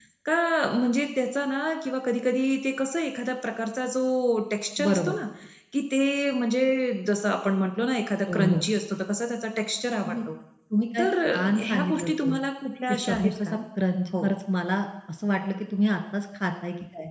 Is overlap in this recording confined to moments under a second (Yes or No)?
No